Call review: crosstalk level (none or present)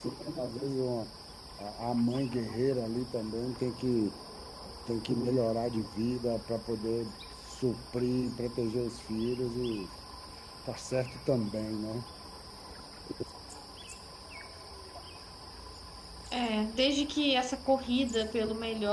none